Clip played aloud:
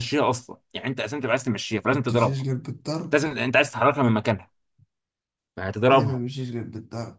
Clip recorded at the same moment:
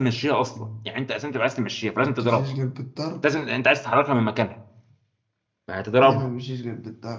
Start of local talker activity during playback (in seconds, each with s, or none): 0.6 s